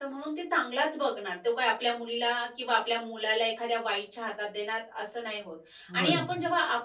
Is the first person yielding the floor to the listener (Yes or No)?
No